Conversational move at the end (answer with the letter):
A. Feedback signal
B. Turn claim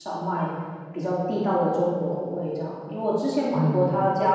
A